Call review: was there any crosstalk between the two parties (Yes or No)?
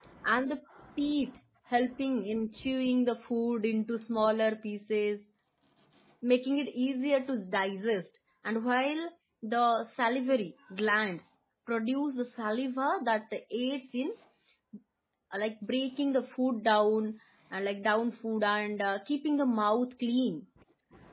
No